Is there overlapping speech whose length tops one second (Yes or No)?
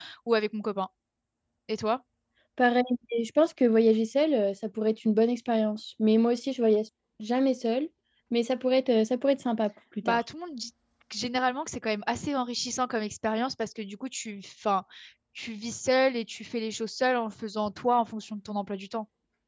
No